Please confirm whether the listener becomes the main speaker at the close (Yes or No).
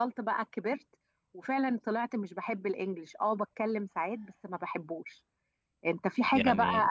No